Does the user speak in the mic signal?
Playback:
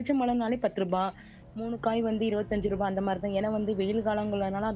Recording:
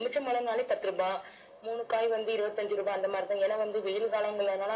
No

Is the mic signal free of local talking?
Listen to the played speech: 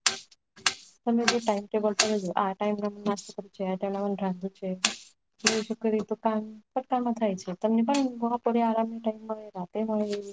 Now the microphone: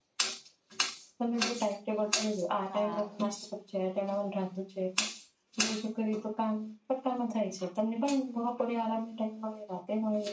No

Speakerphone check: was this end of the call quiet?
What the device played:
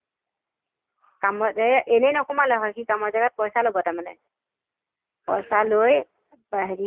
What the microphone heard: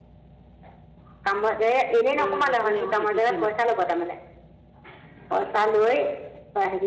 No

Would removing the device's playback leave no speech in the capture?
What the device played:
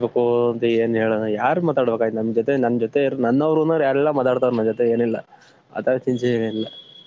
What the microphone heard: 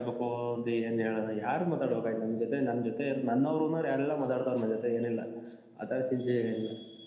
Yes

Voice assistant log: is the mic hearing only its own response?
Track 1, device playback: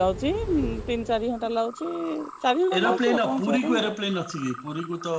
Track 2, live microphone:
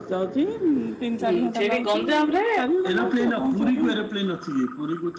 No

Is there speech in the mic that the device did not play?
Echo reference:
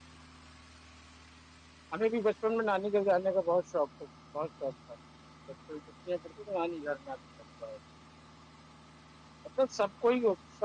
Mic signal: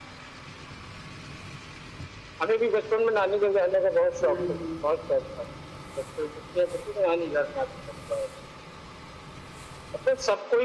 Yes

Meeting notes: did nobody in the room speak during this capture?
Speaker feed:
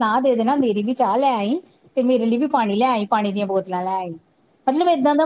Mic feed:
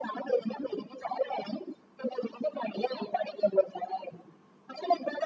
Yes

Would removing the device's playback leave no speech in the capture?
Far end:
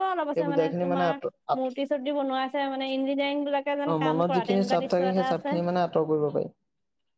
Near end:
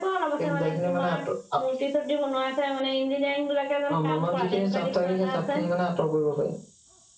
Yes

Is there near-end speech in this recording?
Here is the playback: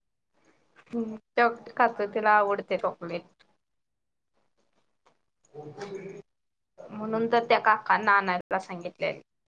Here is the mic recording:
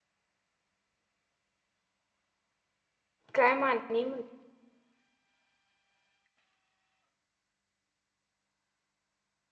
Yes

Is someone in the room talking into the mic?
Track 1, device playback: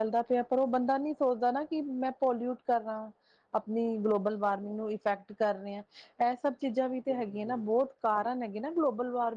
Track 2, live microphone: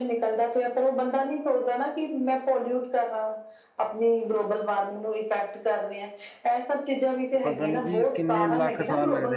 Yes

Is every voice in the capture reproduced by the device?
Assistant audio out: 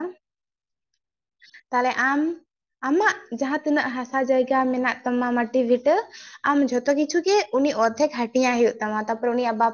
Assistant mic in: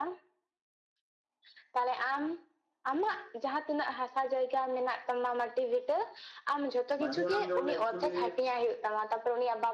No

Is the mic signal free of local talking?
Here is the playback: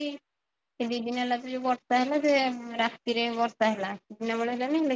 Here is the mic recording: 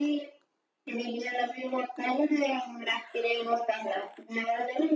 Yes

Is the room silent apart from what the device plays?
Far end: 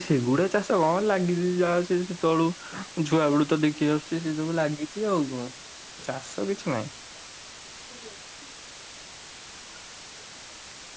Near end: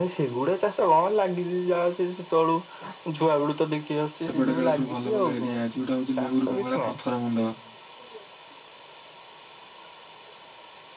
No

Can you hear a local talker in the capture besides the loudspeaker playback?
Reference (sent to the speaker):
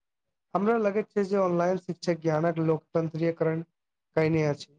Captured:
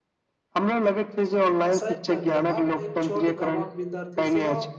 Yes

